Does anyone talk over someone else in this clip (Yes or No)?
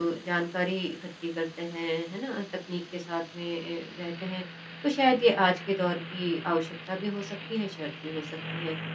No